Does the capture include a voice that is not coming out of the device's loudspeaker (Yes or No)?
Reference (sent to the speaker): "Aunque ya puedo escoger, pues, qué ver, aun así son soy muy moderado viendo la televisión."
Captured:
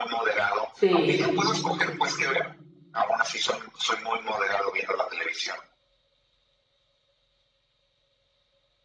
Yes